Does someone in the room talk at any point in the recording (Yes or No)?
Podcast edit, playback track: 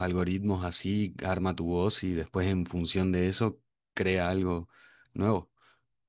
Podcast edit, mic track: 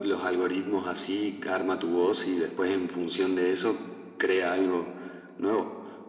No